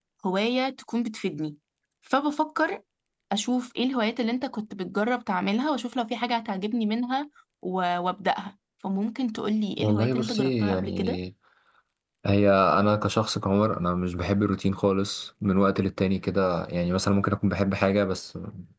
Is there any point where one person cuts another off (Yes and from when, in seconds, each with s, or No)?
Yes, from 9.8 s